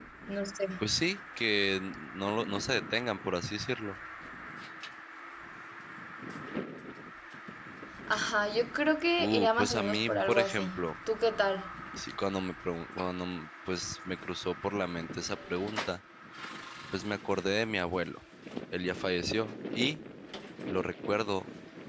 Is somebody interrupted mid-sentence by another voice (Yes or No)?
Yes